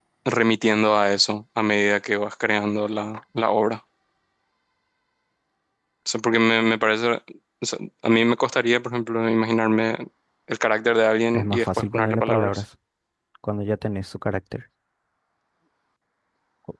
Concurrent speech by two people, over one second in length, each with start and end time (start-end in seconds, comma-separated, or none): 11.3-12.6